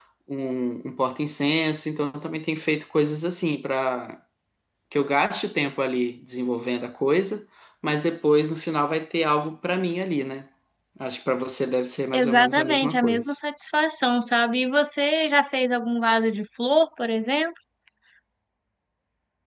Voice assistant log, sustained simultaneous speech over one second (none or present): present